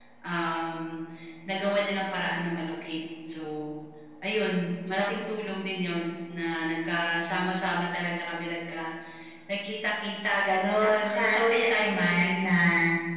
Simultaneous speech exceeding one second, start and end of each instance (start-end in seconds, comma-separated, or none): 10.8-12.5